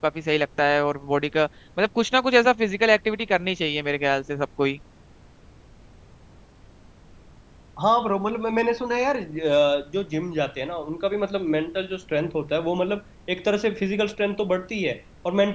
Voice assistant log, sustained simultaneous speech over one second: none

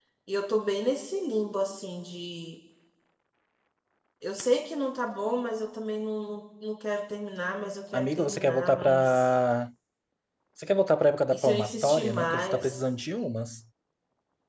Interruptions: present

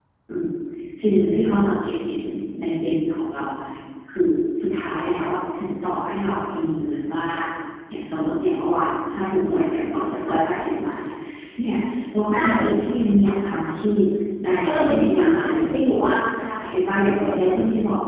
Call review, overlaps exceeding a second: present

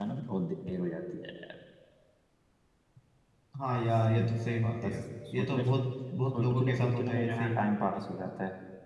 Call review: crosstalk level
present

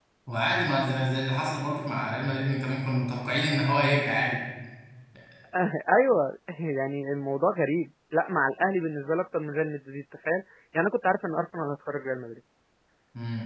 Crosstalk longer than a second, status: none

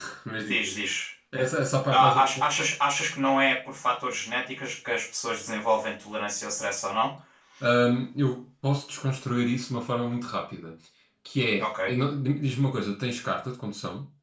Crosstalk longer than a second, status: none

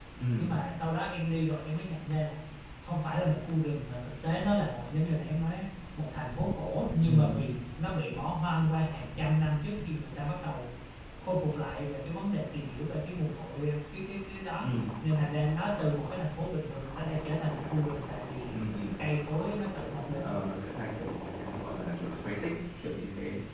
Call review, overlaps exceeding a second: none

